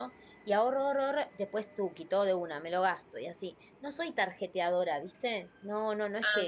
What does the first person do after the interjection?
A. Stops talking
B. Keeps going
B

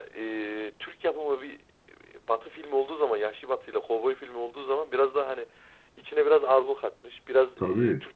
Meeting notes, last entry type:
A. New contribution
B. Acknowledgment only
B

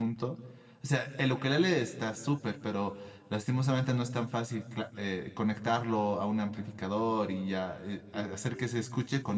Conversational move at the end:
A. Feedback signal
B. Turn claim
A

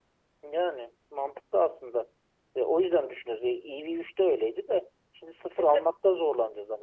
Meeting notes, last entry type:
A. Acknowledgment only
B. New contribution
A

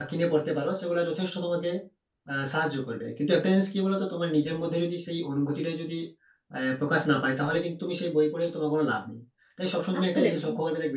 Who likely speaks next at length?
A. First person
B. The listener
A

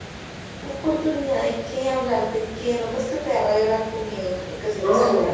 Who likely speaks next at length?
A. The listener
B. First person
A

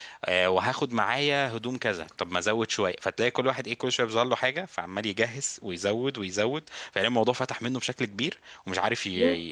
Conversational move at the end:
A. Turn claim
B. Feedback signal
B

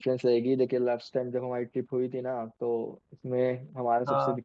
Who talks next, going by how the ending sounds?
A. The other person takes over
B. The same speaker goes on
B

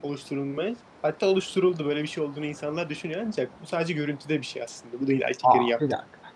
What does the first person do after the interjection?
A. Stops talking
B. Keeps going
A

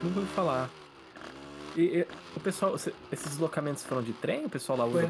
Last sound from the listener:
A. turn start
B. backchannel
A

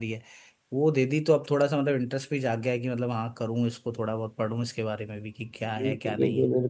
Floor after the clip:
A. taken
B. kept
A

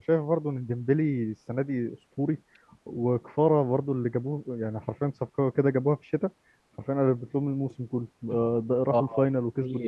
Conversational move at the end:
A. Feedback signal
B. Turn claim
B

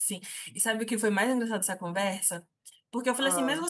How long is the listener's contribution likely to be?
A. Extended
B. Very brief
B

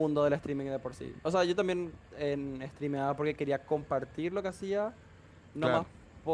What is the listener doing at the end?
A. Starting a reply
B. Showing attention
B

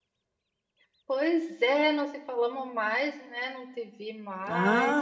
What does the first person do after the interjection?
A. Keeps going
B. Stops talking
B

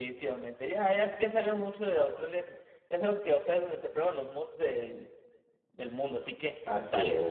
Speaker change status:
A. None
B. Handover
B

